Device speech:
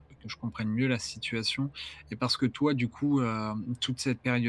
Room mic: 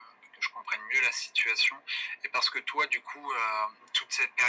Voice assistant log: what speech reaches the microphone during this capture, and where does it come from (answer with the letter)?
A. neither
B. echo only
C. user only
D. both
B